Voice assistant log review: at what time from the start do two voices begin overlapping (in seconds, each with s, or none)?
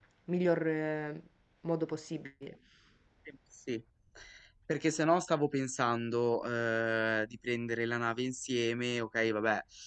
none